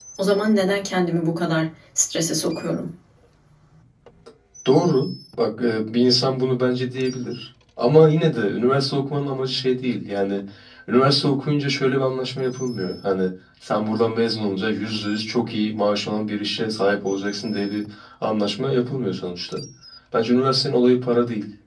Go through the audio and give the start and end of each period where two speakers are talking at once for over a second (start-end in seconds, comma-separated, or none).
none